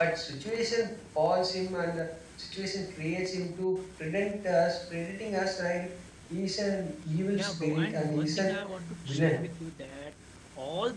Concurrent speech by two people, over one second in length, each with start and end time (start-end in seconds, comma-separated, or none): 7.3-8.5